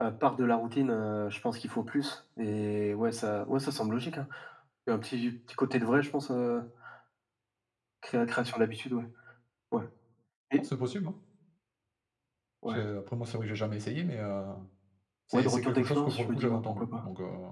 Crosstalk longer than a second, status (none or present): present